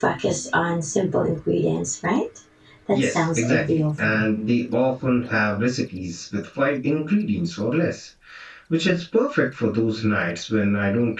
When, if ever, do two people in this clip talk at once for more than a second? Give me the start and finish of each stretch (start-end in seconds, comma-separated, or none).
2.9-4.2